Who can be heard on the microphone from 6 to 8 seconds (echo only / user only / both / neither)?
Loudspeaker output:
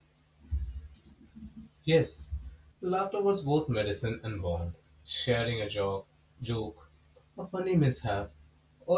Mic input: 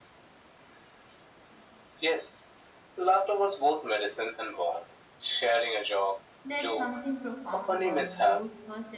both